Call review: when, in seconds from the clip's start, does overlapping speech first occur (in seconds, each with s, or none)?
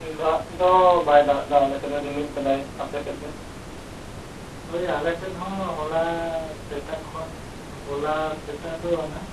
none